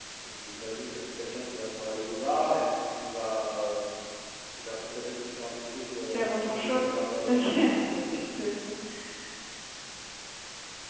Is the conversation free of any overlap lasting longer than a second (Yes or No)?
No